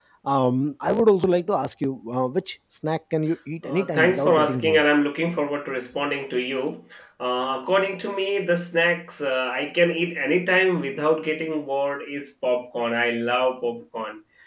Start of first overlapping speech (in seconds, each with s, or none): 3.6 s